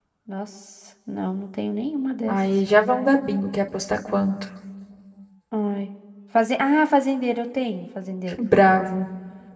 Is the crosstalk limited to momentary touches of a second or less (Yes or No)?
Yes